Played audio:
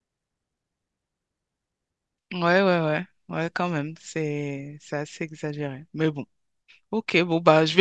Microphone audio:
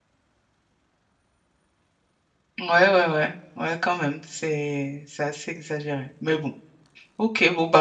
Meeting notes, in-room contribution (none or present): none